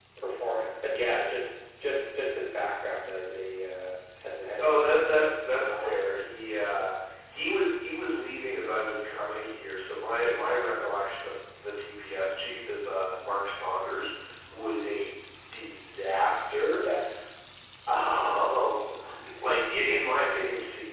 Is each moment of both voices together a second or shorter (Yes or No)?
No